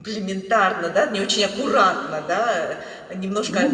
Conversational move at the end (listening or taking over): listening